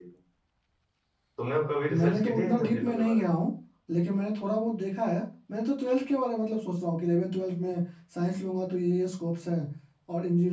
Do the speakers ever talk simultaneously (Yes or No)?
Yes